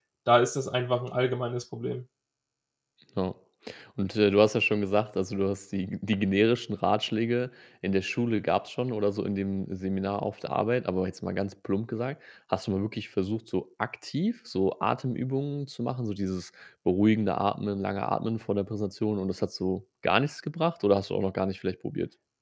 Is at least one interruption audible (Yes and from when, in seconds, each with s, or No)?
No